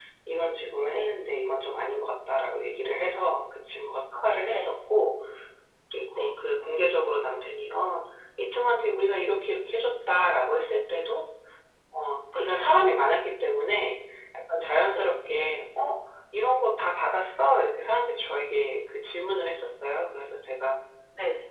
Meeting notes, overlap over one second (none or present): none